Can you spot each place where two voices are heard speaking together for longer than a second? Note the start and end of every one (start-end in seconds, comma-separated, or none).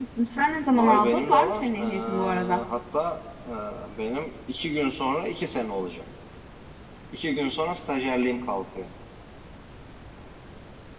0.7-2.6